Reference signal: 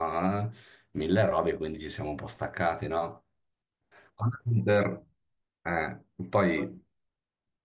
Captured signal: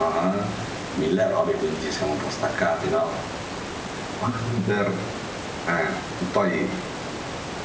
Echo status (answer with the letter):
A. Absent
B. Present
B